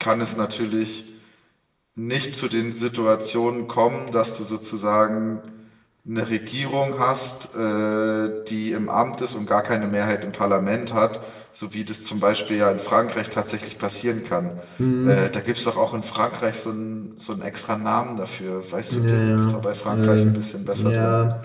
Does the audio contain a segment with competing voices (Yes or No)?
Yes